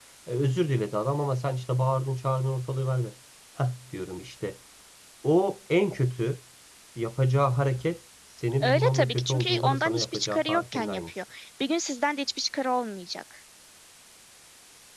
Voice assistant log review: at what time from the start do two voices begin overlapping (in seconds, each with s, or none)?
8.6 s